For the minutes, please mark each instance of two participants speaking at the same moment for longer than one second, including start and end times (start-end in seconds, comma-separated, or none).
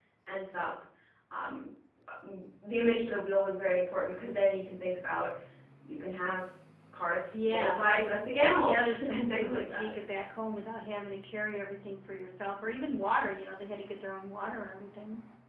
8.6-9.9